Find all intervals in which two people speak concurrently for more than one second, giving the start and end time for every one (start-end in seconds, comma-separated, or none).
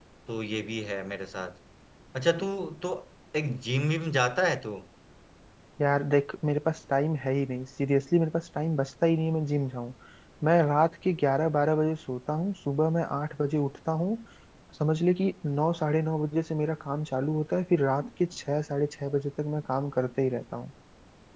none